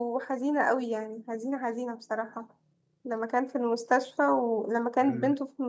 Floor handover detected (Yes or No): No